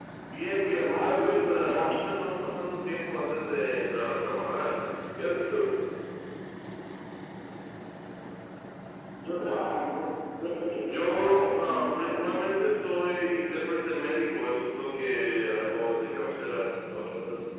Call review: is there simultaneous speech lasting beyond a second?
Yes, from 0.7 s

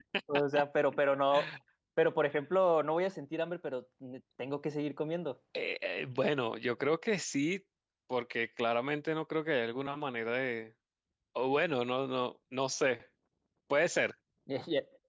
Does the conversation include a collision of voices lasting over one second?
No

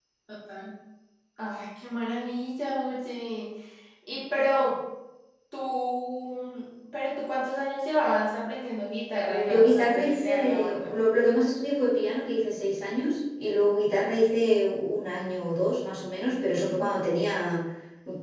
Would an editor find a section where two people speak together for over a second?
Yes, from 9.5 s

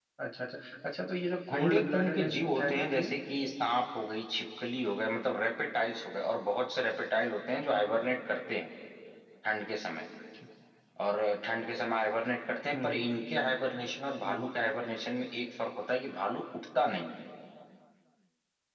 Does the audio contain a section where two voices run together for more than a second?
Yes, from 1.5 s

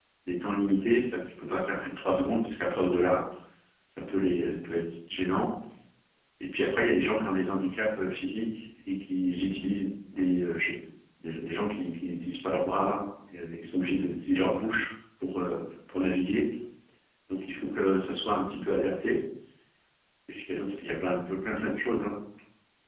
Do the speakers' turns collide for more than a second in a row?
No

